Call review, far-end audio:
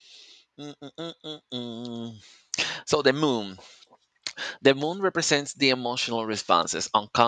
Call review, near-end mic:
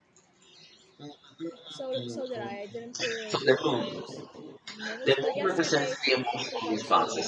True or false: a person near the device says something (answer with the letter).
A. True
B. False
A